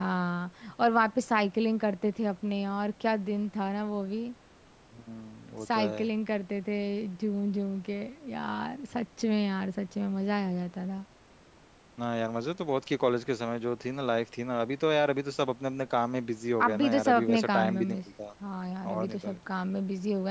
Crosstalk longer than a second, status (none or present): present